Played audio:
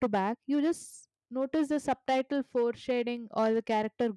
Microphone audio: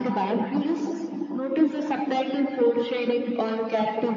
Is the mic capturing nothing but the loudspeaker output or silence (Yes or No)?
Yes